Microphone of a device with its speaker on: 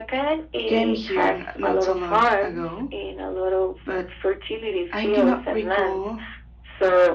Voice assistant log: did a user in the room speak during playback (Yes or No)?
Yes